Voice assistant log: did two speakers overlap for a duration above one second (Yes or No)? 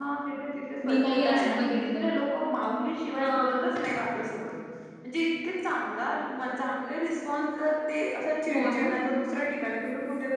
Yes